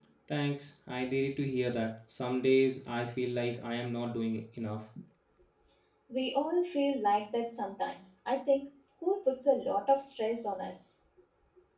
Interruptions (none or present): none